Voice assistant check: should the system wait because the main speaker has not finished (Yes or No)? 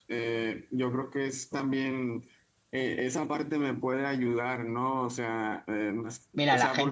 No